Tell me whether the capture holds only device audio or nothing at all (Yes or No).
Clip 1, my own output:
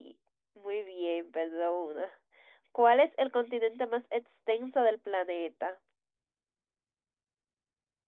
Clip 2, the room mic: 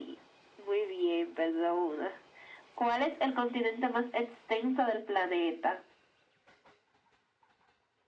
Yes